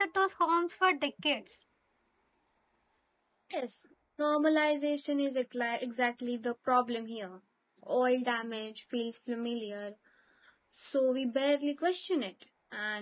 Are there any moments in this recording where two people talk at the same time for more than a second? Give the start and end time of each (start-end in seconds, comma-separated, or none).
none